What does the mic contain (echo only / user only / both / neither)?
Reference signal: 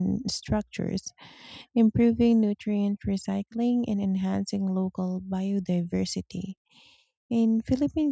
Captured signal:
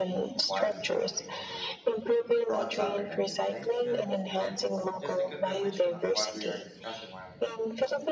both